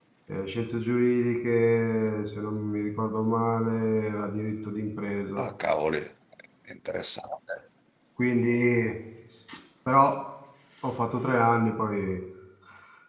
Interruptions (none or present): none